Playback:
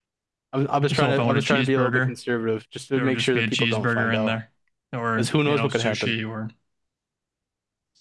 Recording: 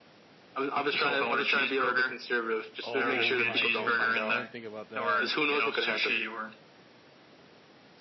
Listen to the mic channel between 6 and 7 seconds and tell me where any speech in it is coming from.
echo only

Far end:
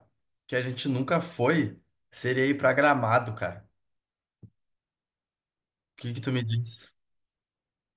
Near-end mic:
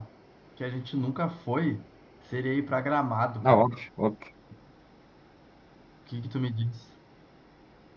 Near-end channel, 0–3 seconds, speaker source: echo only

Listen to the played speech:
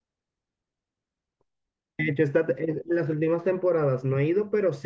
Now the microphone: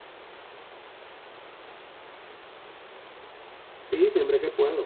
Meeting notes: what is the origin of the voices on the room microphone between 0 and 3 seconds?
neither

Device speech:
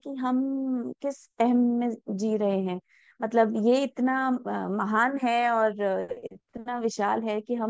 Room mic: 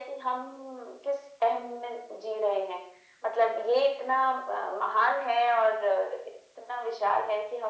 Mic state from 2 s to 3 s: echo only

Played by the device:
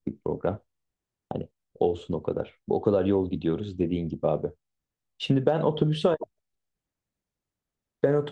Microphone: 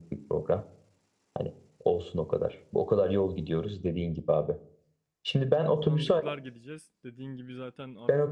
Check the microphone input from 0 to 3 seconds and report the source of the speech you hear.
echo only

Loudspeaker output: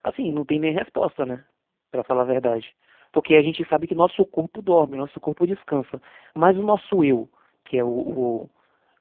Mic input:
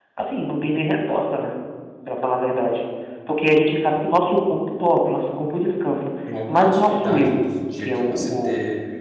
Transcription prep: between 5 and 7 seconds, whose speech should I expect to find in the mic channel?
both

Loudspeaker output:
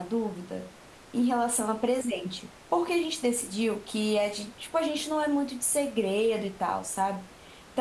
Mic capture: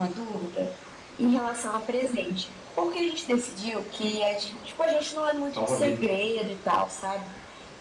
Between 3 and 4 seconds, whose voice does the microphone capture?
echo only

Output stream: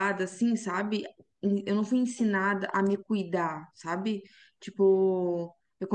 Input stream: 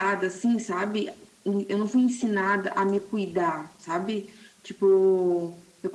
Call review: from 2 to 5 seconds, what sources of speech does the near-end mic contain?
echo only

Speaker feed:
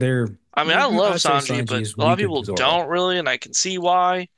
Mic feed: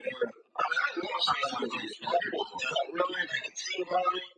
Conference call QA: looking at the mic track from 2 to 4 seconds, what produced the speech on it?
echo only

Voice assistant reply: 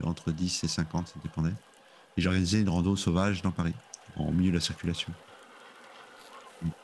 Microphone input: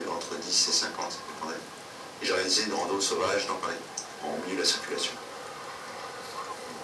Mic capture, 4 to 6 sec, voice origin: echo only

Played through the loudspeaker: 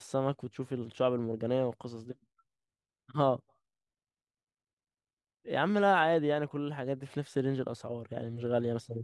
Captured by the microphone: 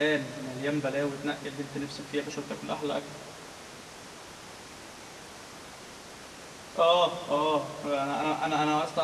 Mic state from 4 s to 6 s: neither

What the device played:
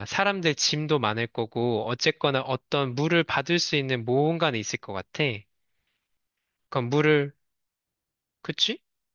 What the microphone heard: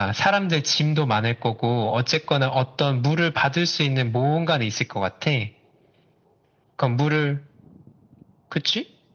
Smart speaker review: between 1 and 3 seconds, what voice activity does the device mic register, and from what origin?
echo only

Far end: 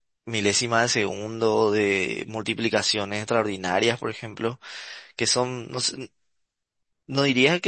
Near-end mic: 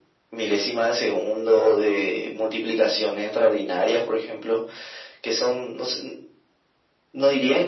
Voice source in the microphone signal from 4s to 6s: echo only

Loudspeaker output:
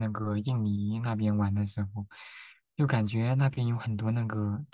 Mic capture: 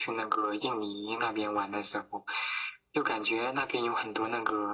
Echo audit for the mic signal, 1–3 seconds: echo only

